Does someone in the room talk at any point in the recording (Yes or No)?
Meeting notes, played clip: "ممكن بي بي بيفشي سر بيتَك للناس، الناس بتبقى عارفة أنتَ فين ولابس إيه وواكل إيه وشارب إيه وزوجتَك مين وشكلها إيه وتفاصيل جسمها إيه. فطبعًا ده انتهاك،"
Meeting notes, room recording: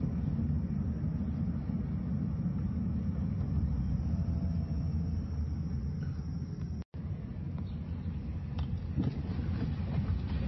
No